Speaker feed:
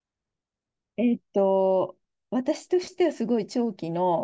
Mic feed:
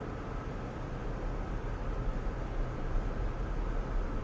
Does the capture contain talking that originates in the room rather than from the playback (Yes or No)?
No